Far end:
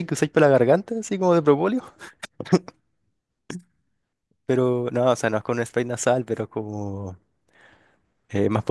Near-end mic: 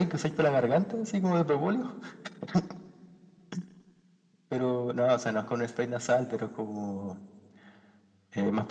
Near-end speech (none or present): none